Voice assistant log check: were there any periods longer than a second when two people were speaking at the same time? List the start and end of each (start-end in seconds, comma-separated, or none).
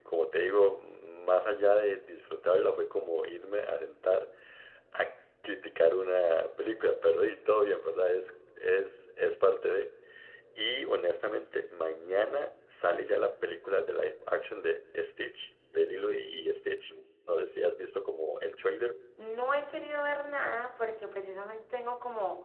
none